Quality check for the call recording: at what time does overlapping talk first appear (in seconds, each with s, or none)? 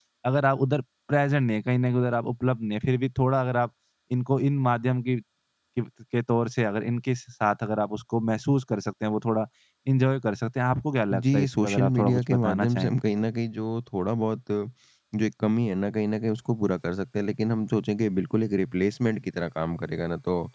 11.1 s